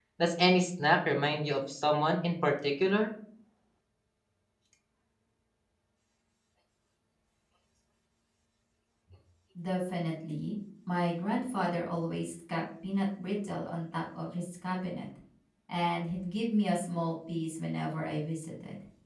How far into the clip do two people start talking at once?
none

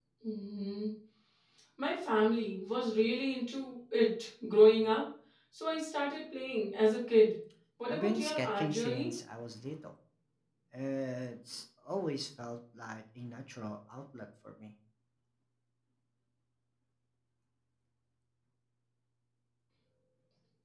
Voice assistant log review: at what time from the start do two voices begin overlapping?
8 s

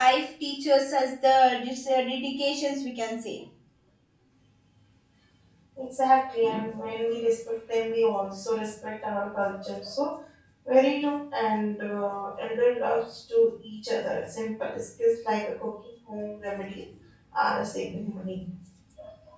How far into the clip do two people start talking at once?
none

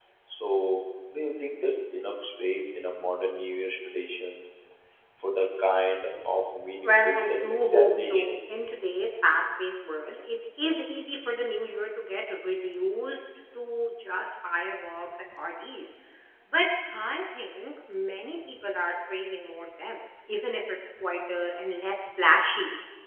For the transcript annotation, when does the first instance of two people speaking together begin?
7 s

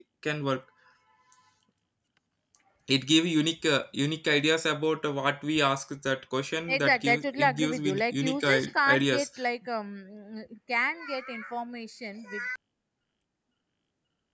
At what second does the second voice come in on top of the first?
7 s

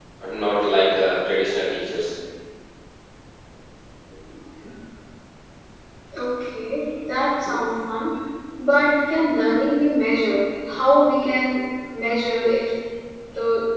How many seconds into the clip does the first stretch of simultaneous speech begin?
none

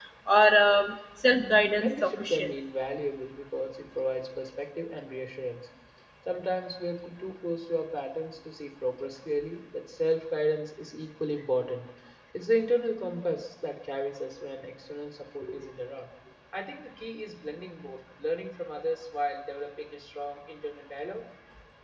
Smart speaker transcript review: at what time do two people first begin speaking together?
1 s

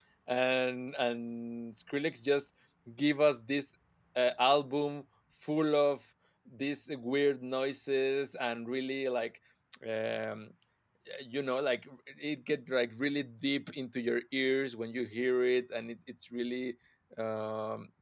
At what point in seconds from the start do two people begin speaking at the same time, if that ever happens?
none

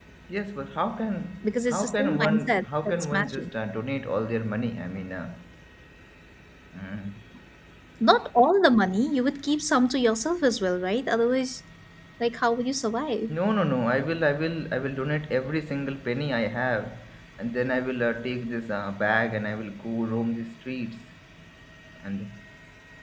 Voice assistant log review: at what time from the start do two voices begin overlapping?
1 s

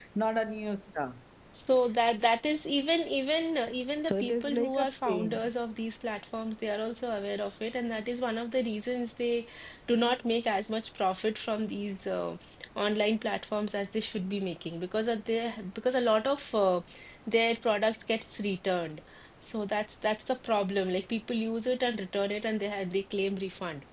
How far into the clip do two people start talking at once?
4 s

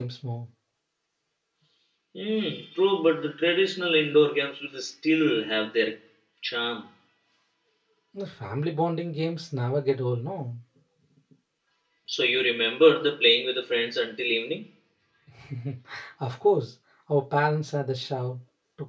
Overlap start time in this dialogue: none

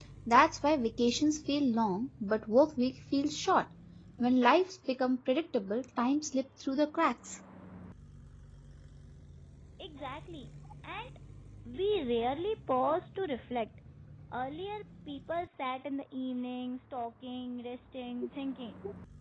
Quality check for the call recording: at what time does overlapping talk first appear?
none

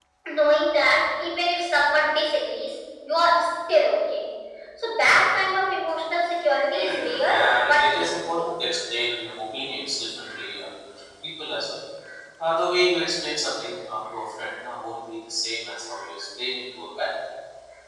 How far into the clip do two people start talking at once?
7 s

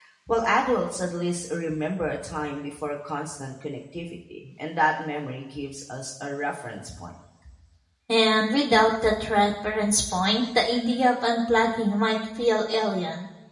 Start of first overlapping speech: none

